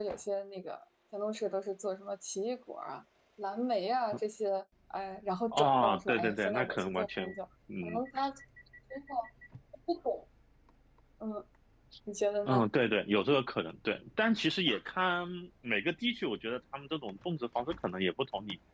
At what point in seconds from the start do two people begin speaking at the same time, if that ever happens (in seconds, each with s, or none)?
5.5 s